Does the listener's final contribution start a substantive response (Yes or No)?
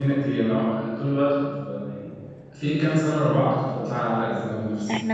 Yes